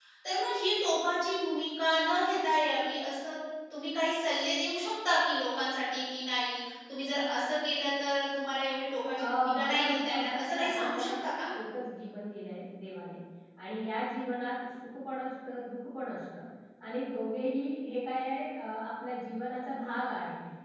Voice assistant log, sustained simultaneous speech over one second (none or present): present